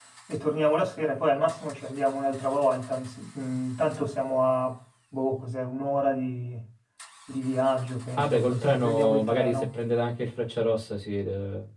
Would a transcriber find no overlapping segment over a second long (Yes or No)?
No